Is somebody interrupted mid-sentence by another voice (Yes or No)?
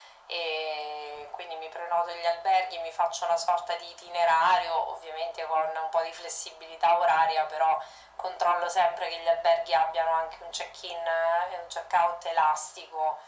No